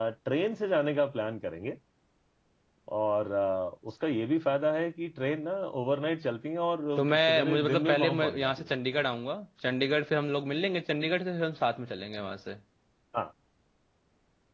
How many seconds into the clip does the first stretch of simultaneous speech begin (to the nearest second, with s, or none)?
7 s